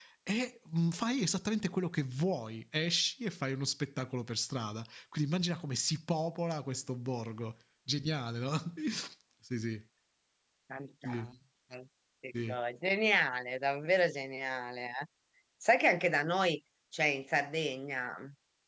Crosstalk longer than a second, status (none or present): none